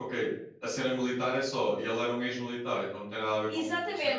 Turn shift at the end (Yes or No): Yes